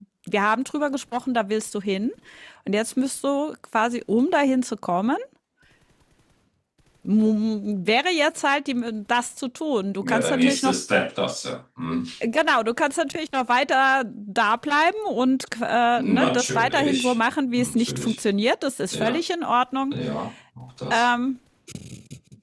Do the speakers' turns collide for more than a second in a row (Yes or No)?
Yes